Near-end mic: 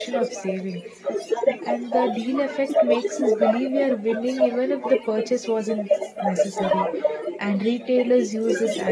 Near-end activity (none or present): present